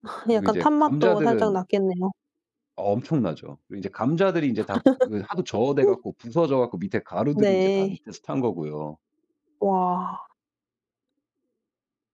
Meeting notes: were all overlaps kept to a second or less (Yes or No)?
No